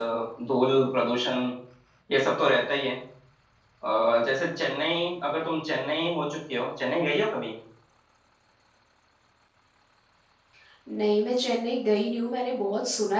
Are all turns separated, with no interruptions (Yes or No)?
Yes